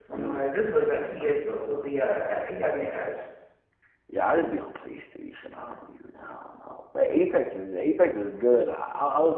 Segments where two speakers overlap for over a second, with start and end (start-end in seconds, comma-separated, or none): 1.2-3.2